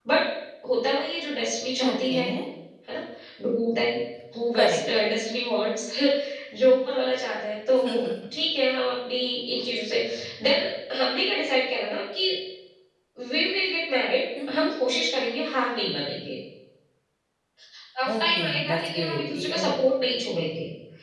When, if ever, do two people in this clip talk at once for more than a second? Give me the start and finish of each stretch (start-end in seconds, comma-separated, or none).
18.2-19.7